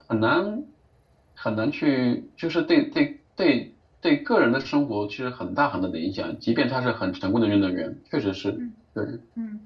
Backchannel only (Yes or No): No